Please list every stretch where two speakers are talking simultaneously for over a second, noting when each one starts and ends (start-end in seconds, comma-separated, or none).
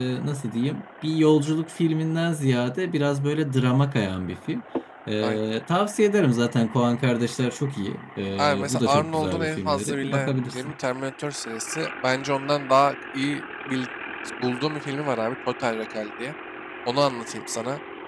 8.4-10.7